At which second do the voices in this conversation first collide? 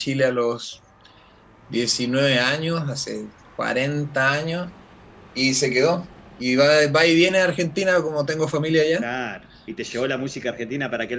none

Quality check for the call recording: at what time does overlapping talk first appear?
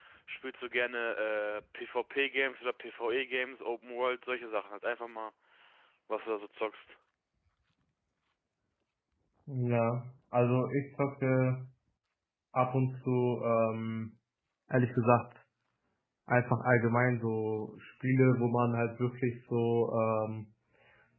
none

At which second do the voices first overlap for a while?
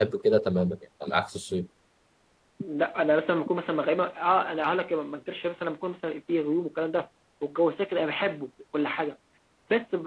none

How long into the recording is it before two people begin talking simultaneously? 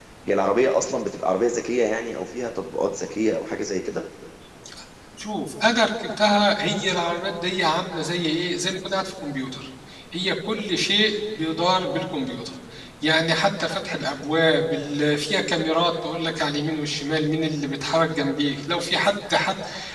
none

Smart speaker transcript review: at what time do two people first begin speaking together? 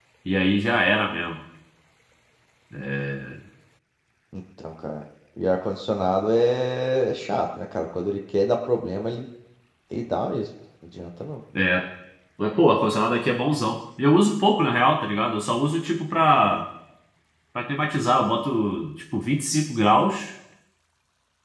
none

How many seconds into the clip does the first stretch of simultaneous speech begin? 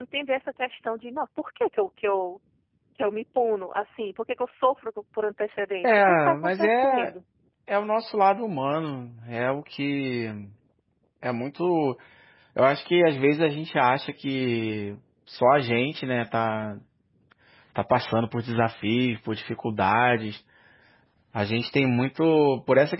6 s

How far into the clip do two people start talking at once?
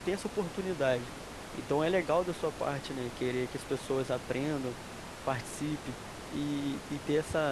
none

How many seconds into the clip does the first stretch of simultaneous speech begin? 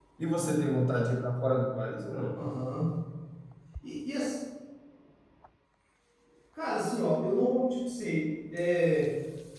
none

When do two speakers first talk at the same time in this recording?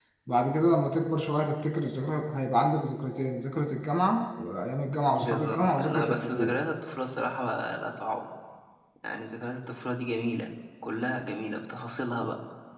5 s

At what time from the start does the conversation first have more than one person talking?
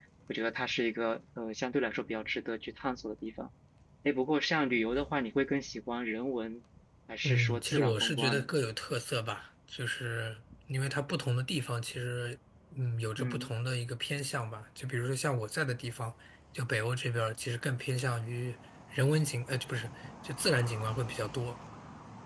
7 s

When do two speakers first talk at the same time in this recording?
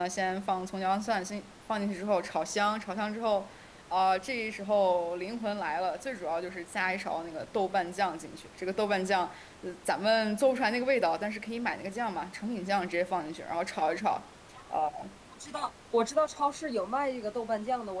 none

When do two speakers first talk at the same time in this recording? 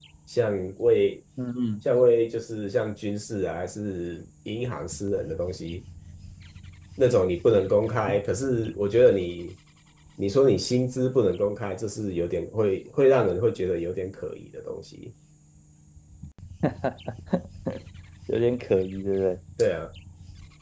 none

